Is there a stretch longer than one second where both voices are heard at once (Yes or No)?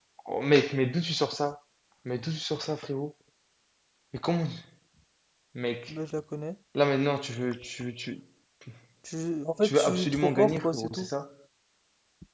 Yes